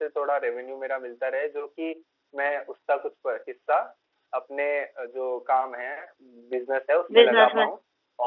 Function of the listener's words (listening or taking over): listening